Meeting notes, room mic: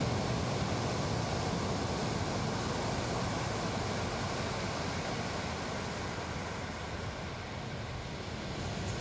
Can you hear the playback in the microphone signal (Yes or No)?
No